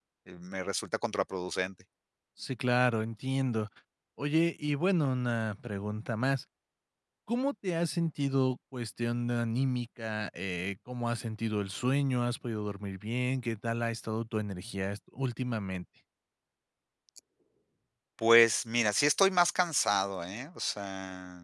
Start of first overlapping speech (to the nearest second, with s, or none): none